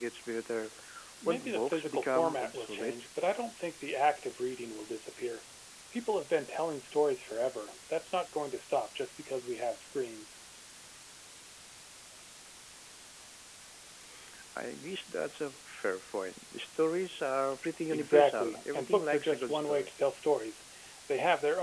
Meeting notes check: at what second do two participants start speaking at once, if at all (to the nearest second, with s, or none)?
1 s